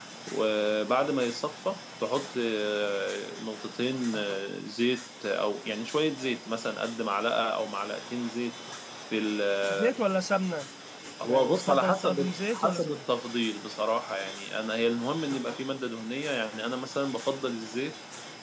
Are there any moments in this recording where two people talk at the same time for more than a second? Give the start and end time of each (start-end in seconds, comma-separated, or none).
11.2-13.0